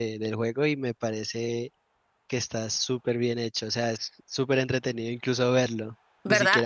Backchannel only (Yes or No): Yes